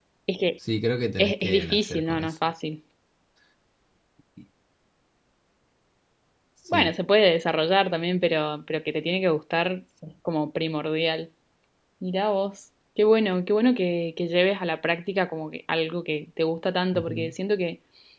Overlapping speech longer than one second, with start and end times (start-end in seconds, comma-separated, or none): 1.2-2.5